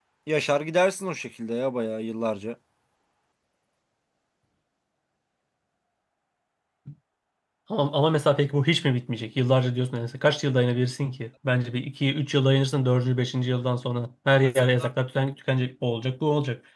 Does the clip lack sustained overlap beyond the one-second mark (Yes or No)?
Yes